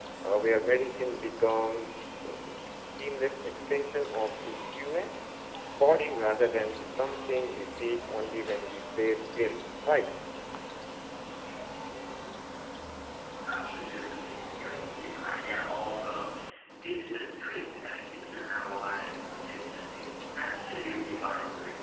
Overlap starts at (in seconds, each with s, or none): none